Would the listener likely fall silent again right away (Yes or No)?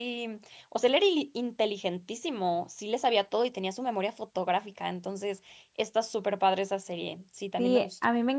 No